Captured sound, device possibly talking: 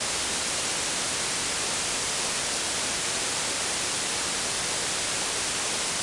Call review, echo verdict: none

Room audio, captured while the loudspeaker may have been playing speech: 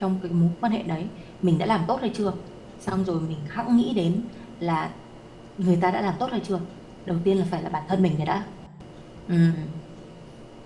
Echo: none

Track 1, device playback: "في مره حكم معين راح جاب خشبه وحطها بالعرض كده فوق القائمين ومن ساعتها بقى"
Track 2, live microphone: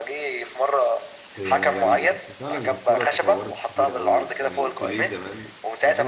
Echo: present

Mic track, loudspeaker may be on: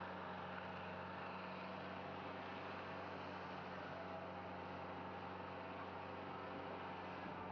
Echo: none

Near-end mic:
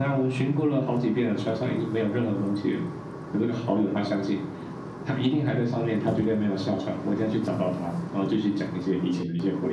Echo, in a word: present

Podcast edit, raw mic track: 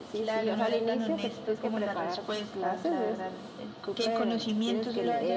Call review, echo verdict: present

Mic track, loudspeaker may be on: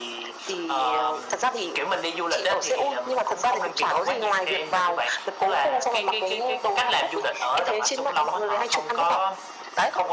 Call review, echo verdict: present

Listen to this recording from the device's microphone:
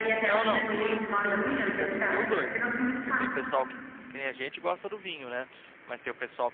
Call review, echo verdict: present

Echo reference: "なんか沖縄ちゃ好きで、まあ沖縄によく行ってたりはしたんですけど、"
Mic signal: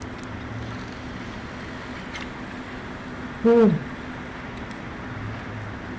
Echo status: none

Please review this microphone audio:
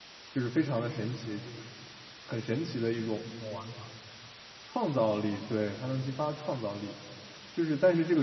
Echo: none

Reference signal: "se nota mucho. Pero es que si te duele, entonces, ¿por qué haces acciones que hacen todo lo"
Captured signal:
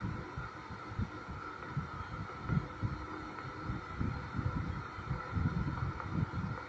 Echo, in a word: none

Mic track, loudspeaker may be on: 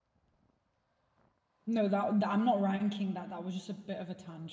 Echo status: none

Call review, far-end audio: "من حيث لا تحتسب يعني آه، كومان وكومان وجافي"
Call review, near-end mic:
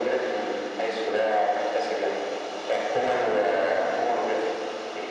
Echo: present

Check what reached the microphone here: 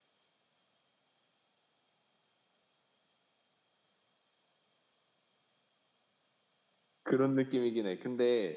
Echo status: none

